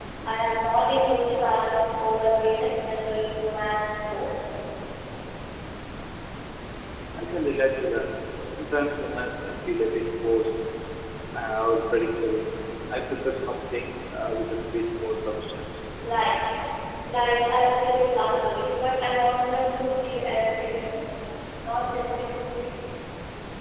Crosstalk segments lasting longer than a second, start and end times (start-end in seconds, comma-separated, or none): none